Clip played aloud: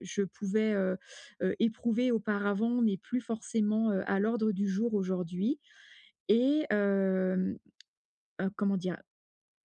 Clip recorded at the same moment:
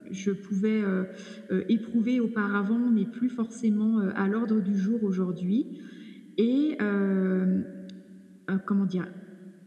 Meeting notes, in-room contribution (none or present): none